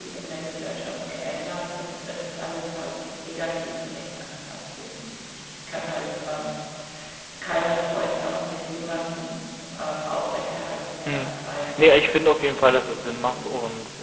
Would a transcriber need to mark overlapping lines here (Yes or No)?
Yes